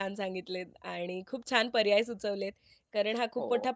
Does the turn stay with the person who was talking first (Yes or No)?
Yes